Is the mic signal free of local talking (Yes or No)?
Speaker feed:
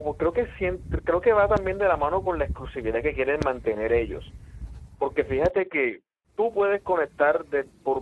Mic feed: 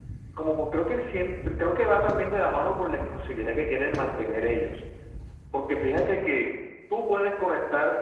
Yes